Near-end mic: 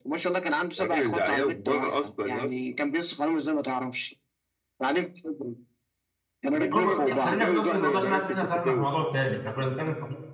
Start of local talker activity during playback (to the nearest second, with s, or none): 7 s